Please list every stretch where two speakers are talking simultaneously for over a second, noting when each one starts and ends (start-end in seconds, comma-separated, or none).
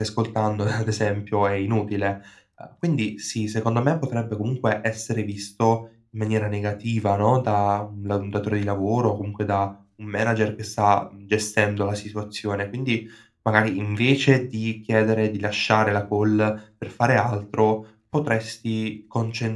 none